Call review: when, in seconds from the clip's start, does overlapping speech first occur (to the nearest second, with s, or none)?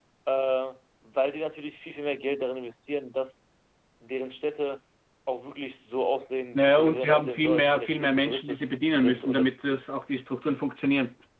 7 s